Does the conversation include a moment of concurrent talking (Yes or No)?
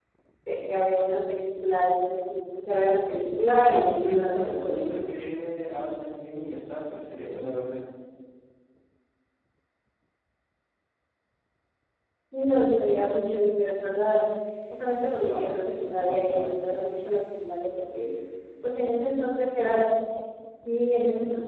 Yes